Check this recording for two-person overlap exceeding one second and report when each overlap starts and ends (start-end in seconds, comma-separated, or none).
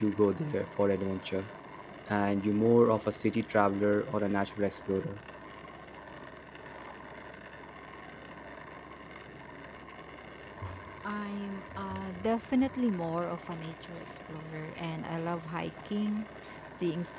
none